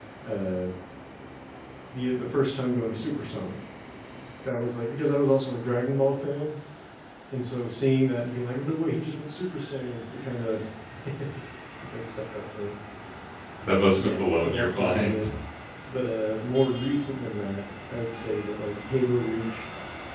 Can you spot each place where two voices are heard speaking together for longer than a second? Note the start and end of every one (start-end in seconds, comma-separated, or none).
14.0-15.3